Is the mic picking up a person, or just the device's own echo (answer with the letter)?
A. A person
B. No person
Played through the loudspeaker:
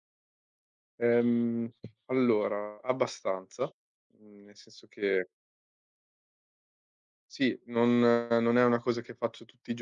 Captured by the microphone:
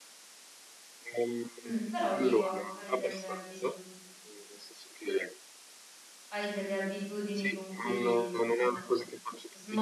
A